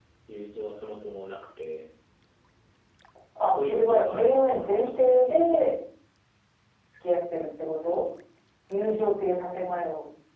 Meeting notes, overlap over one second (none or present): present